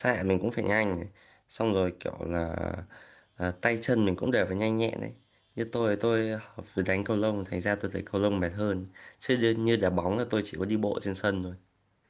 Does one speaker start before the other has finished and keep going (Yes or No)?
No